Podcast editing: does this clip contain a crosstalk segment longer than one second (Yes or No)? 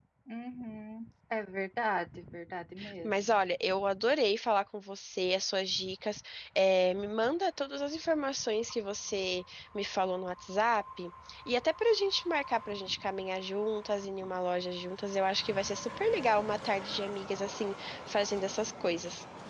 No